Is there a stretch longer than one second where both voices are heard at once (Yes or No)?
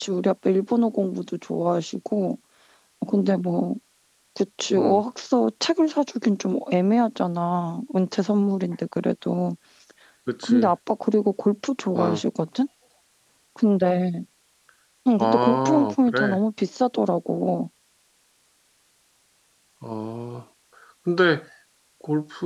Yes